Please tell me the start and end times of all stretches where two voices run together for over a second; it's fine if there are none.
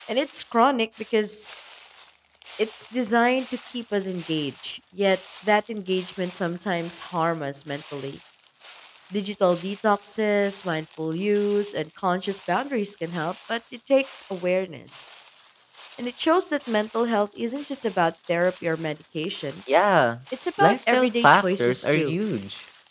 20.6-22.1

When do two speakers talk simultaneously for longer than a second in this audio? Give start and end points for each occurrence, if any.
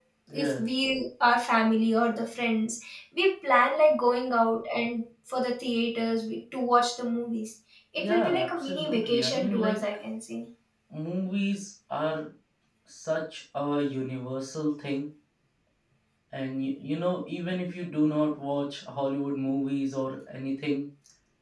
8.0-9.8

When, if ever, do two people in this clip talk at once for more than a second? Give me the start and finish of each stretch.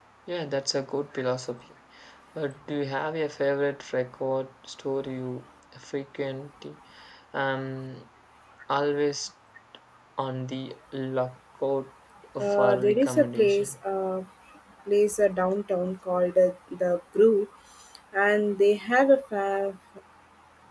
12.4-13.7

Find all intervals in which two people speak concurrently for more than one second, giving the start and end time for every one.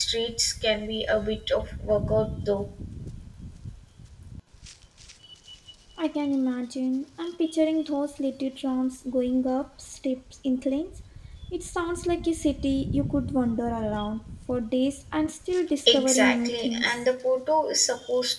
15.9-17.1

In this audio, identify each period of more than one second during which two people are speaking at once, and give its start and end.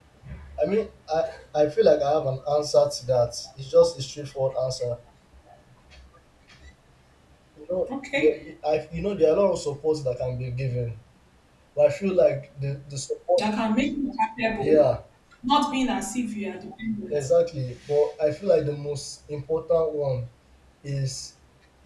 none

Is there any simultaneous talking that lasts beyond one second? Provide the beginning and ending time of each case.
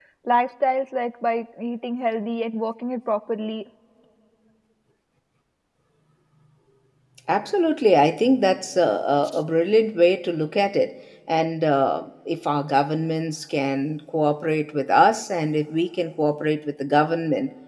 none

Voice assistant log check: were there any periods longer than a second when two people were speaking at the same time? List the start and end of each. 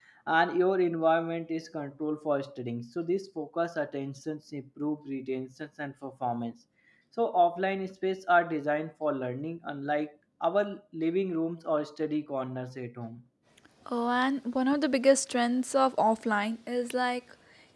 none

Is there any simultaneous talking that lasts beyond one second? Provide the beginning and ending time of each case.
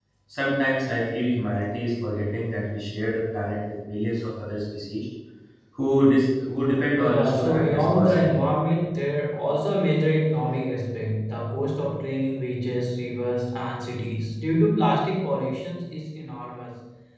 7.0-8.4

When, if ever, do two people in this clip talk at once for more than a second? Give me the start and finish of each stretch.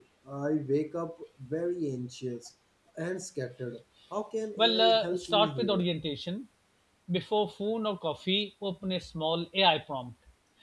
4.6-5.8

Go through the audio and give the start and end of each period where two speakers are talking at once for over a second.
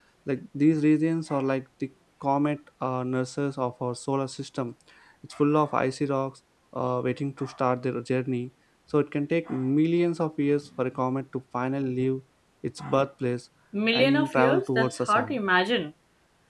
13.9-15.4

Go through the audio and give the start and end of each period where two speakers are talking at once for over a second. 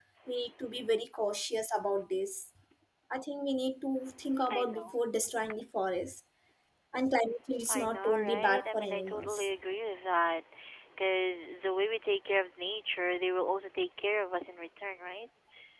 7.7-9.5

